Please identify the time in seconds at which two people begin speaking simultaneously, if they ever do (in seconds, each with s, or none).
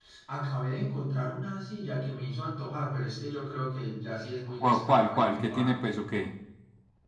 4.6 s